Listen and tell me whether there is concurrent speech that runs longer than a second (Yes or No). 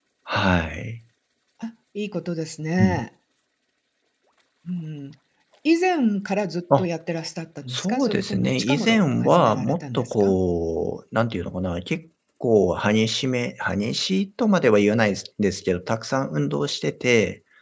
Yes